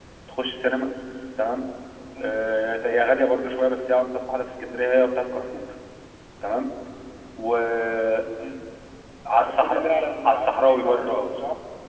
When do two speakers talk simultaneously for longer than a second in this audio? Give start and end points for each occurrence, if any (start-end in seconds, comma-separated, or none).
9.4-11.3